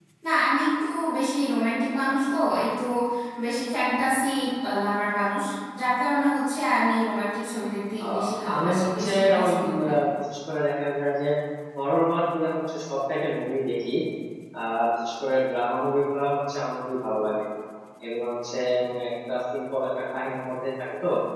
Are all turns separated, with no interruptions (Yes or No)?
No